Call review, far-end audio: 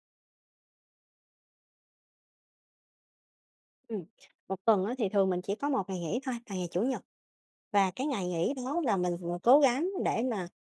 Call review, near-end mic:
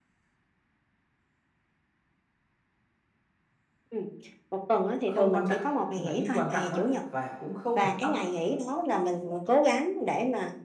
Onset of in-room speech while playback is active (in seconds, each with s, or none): 5.0 s